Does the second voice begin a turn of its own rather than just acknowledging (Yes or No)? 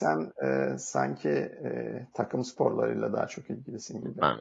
Yes